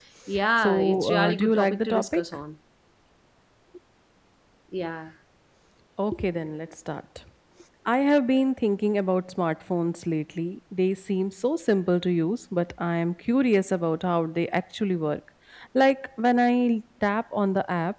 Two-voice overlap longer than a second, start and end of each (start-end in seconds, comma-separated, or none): 0.6-2.2